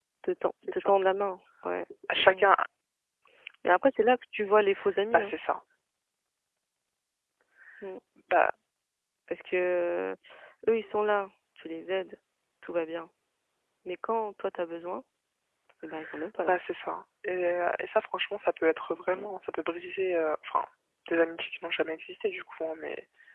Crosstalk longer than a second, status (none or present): none